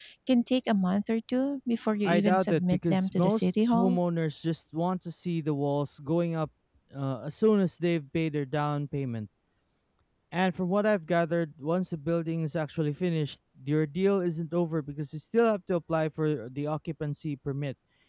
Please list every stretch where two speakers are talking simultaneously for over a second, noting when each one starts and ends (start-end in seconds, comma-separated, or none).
2.0-4.0